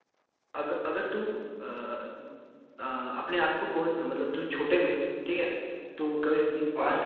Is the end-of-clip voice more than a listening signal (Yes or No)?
No